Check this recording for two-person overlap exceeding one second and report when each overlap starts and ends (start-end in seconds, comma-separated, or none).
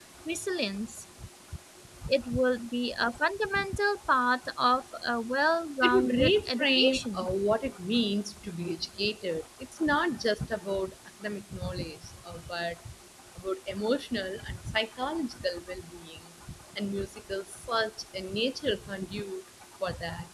5.8-7.3